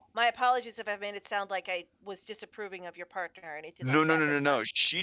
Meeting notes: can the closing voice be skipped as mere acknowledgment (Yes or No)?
No